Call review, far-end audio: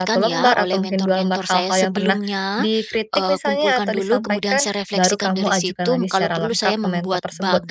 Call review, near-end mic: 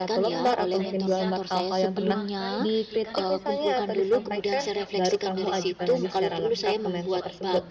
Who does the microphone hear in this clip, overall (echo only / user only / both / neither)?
both